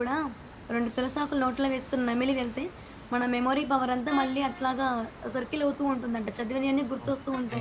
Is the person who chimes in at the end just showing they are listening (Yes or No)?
No